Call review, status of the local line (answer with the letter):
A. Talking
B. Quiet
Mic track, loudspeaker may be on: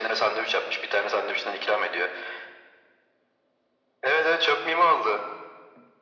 B